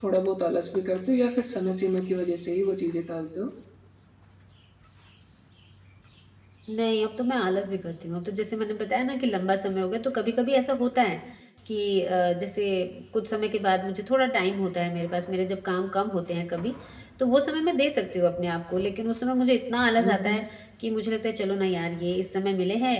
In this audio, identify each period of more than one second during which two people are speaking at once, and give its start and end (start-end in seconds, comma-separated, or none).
none